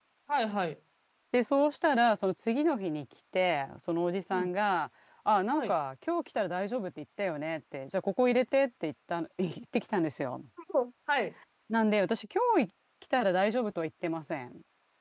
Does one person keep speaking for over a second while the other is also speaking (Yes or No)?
No